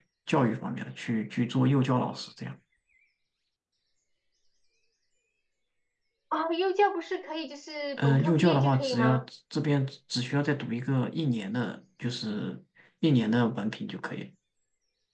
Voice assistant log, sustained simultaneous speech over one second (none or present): present